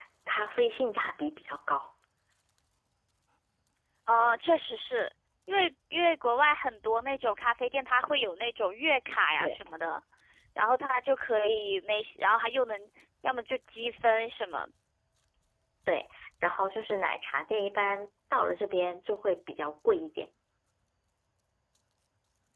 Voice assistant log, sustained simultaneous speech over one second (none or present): none